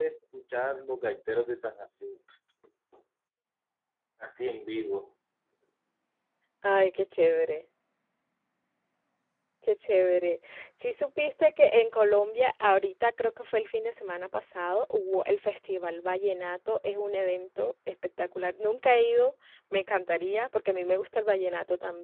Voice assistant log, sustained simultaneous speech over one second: none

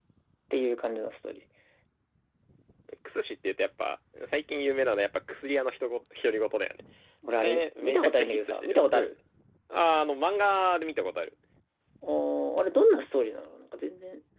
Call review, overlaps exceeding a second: present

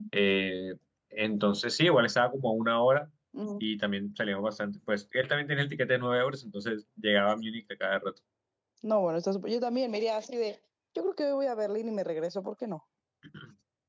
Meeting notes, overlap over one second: none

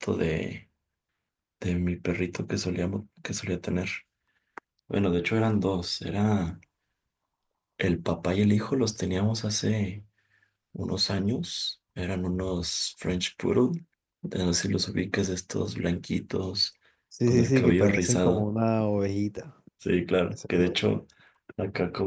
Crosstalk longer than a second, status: present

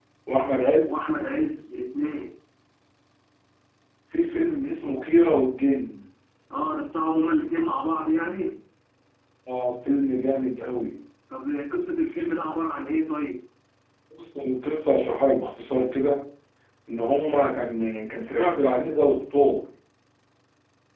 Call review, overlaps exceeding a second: none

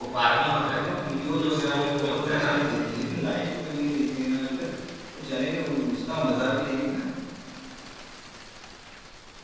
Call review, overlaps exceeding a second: present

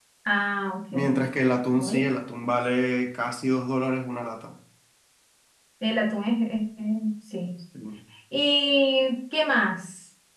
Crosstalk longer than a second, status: none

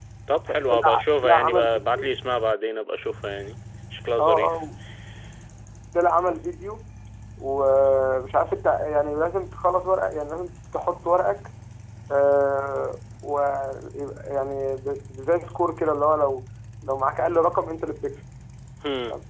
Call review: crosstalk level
present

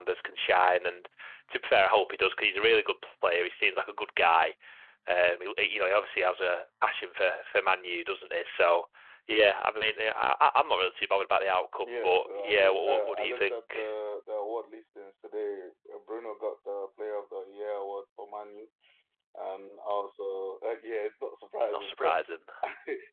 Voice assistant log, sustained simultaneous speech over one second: present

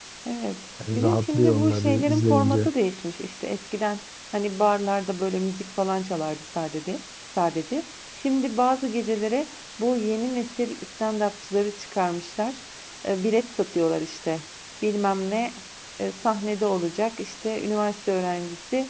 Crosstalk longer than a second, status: present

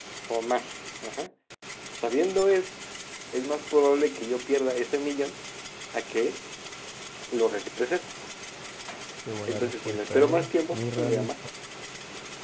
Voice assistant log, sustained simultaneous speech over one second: present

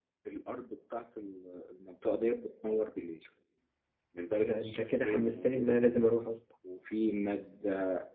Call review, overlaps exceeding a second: present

